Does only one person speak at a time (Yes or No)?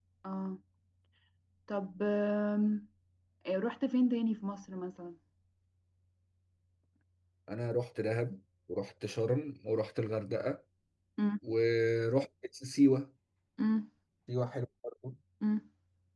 Yes